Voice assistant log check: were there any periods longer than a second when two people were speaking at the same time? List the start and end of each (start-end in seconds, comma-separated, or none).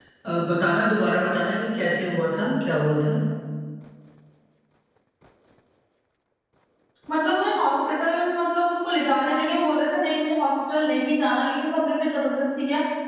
none